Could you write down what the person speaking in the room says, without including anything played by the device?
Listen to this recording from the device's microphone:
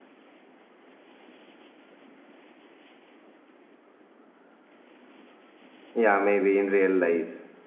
Yeah, maybe in real life.

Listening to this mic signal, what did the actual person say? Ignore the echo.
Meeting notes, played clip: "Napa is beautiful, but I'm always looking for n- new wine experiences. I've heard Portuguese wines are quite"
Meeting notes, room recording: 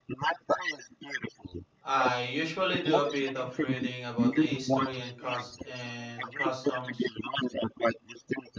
I usually do a bit of reading about the history and cus- and customs.

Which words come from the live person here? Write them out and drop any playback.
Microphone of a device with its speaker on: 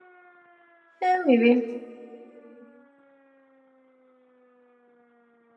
Yeah, maybe.

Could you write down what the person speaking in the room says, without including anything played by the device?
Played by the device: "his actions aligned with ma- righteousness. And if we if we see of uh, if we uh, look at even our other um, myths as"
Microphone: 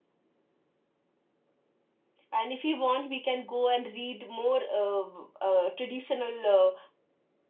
and if we want, we can go and read more uh, uh, traditional uh,

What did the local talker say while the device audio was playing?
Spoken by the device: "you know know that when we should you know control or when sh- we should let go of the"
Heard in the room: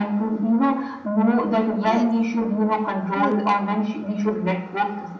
Yes, Yes.

